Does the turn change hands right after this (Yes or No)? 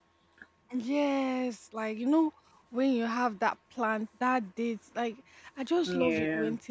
No